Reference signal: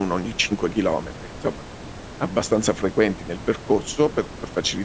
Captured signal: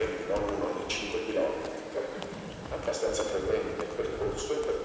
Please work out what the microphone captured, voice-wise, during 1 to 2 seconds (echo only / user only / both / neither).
echo only